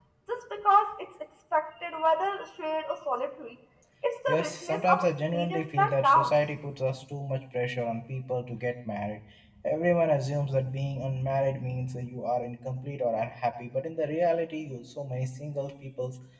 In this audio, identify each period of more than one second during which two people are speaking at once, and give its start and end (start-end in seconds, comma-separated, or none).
4.3-6.3